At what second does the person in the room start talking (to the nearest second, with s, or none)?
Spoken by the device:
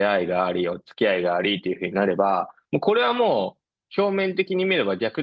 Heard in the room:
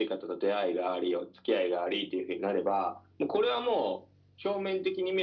none